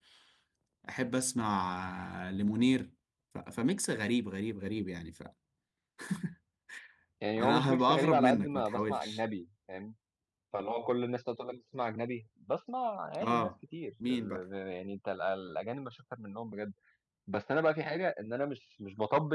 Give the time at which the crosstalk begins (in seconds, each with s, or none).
7.4 s